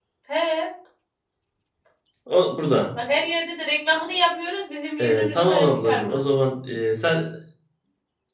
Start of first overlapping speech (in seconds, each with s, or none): 5.0 s